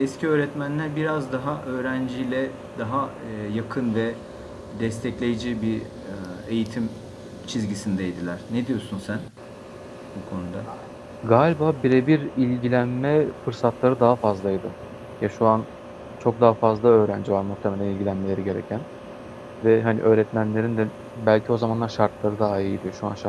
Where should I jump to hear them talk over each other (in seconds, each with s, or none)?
none